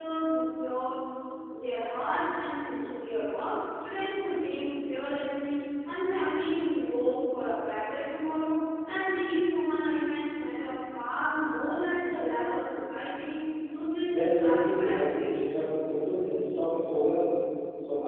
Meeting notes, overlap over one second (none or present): present